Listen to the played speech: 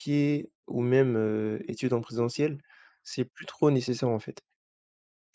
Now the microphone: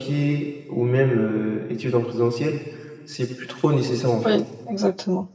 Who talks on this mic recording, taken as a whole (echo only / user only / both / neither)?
both